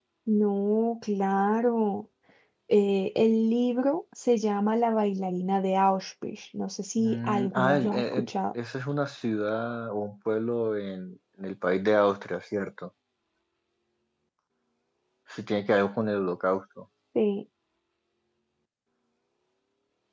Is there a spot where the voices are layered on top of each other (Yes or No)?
Yes